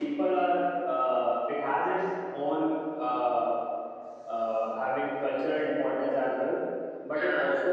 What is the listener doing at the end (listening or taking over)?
listening